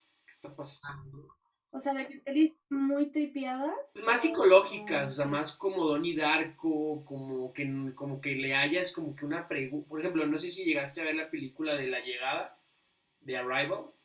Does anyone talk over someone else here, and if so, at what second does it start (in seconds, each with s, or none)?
4.0 s